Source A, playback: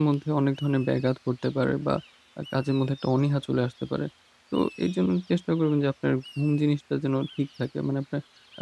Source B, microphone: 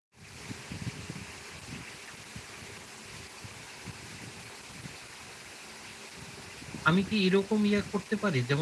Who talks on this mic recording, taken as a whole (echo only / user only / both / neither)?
user only